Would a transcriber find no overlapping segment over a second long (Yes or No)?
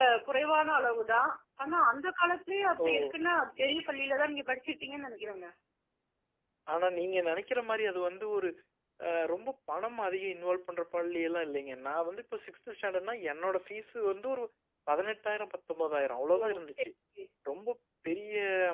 Yes